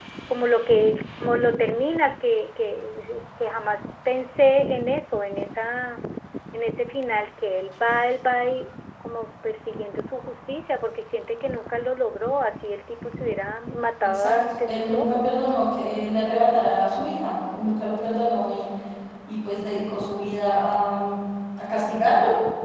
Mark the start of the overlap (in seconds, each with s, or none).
14.0 s